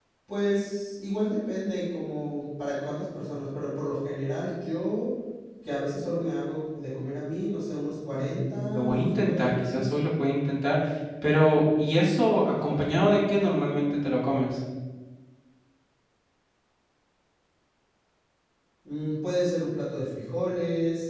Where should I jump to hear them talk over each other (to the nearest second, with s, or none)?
8 s